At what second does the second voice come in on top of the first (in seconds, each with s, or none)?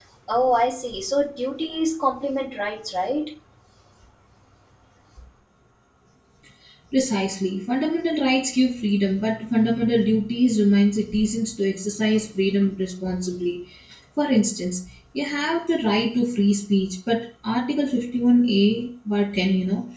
none